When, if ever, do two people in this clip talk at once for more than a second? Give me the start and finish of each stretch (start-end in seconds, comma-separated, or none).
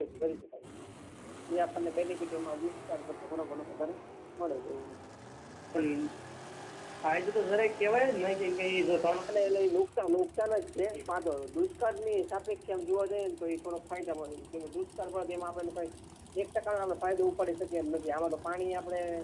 none